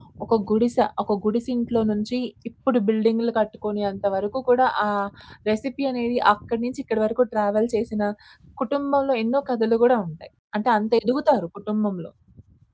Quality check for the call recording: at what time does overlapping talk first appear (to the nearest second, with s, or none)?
none